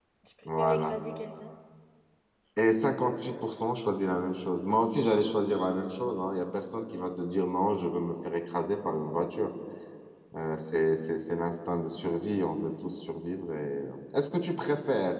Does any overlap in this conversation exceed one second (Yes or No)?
No